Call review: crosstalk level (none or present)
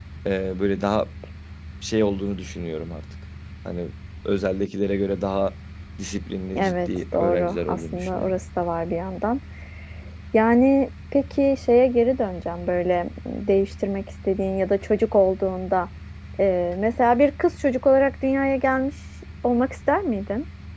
present